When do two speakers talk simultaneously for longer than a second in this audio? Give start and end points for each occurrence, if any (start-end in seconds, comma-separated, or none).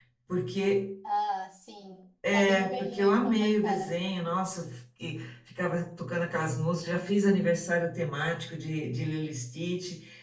2.5-4.0